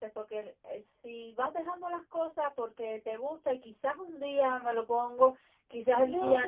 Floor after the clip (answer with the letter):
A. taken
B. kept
B